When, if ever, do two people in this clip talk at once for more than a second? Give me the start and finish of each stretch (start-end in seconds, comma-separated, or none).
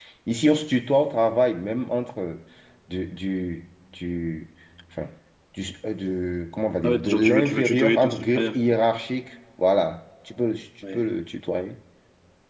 6.8-8.6